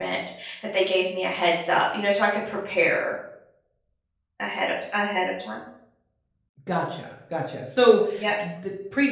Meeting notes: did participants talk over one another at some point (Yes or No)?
No